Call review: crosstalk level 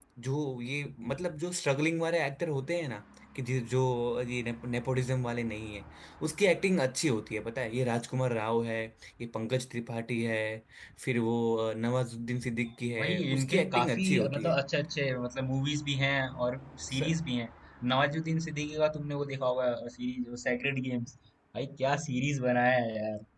present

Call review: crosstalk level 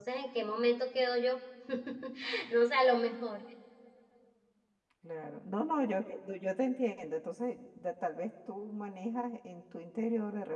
none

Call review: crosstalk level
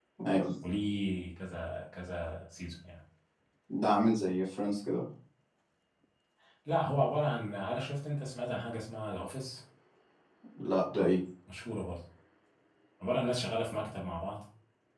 none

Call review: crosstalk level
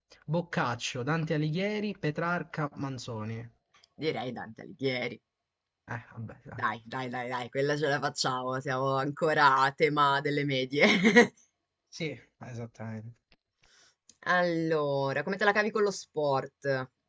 none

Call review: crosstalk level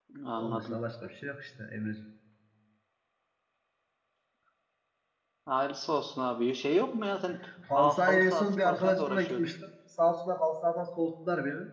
present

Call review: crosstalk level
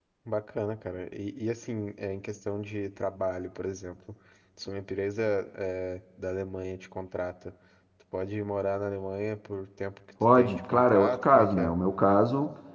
present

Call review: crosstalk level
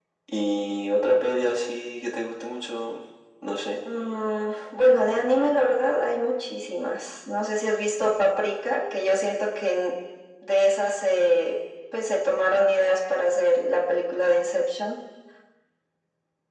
none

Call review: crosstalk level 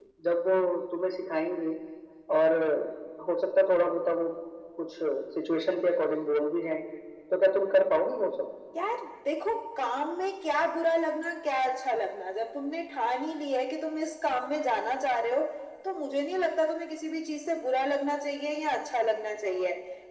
none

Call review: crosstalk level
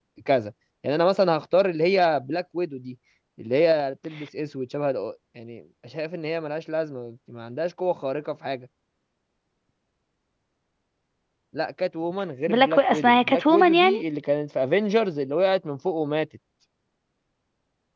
present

